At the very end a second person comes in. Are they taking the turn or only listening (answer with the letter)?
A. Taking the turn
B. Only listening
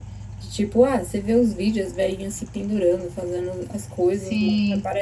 B